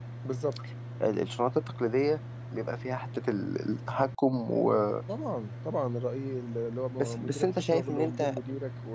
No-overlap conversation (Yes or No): No